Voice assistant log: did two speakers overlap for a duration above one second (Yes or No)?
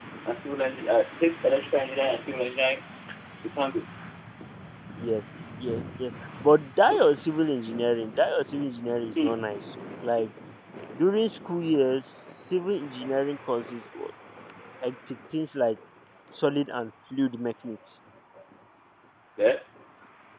No